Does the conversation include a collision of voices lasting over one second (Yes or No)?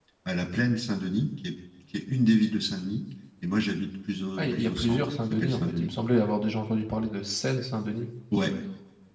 Yes